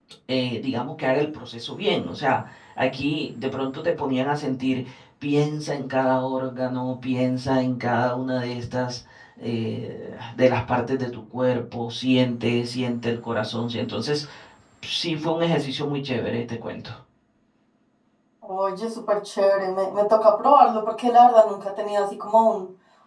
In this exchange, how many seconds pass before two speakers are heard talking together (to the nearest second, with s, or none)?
none